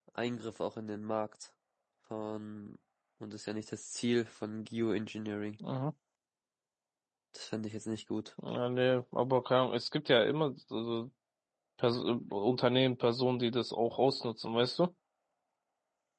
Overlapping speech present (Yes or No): No